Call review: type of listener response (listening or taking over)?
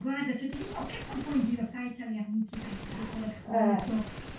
listening